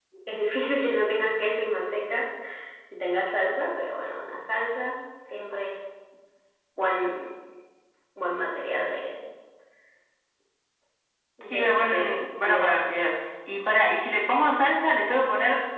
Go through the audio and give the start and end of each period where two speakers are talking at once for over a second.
11.4-12.8

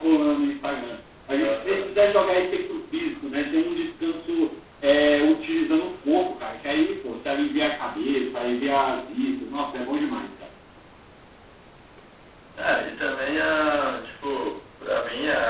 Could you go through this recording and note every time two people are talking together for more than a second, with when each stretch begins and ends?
none

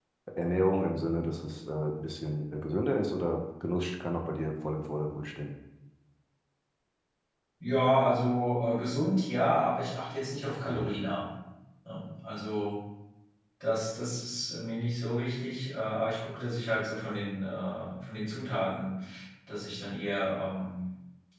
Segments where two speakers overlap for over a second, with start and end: none

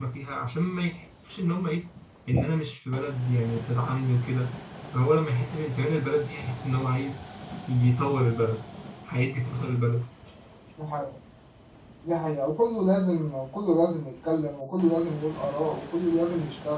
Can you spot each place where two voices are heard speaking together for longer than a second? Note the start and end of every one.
none

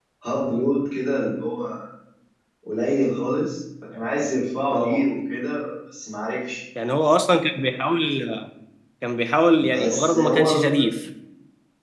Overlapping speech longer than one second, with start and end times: 9.7-10.9

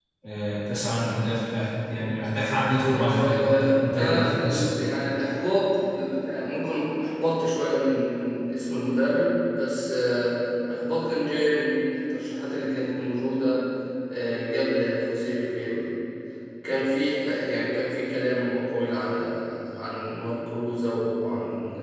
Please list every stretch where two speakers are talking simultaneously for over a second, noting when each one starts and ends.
2.9-4.7

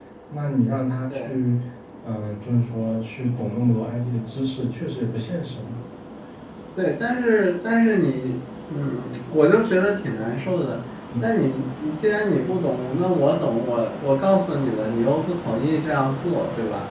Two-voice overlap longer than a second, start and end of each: none

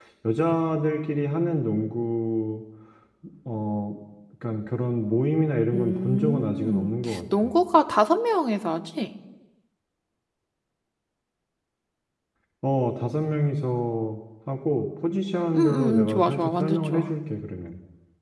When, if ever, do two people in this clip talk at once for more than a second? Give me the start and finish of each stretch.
5.7-7.5, 15.6-17.1

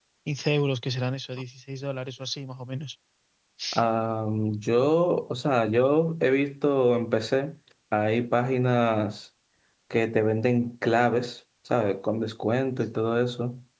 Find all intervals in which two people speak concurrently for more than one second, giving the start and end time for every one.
none

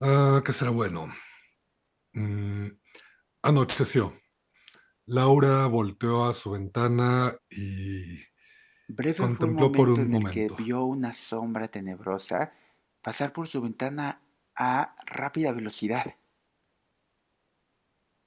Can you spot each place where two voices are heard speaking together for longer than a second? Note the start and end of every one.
9.2-10.5

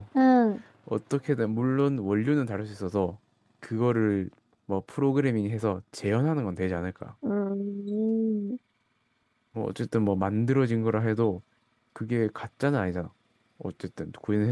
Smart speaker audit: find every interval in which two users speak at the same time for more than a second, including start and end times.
none

